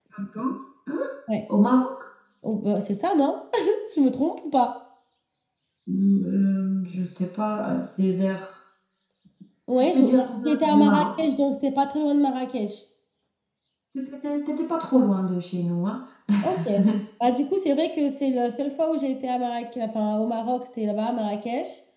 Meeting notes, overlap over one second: present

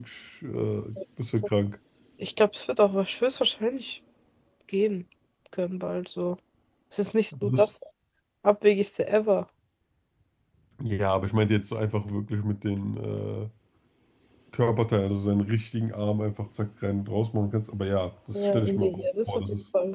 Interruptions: present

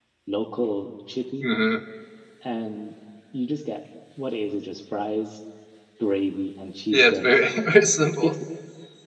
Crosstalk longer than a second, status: none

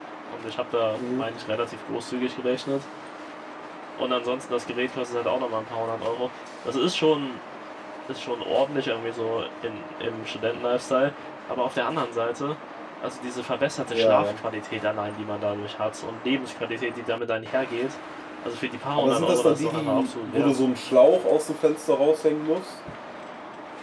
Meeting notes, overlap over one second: present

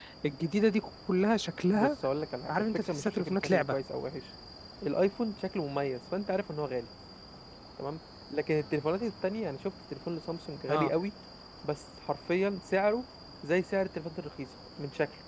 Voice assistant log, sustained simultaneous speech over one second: present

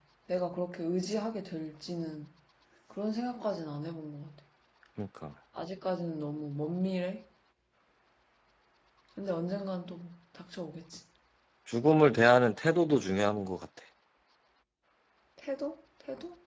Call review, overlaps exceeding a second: none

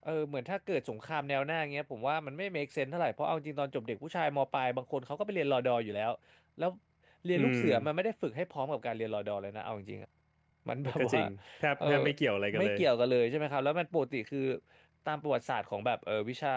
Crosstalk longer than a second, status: none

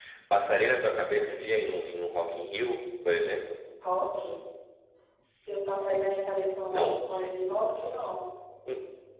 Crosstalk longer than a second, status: none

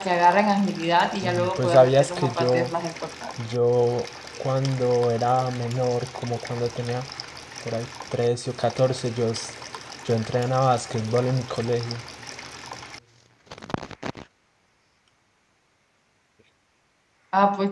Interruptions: present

